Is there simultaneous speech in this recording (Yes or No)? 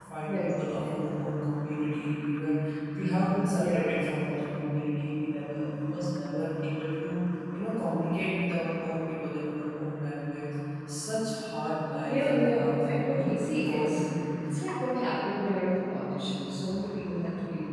Yes